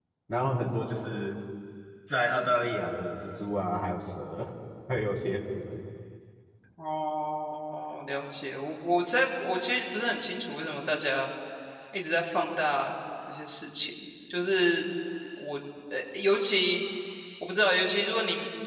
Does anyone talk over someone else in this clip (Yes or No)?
No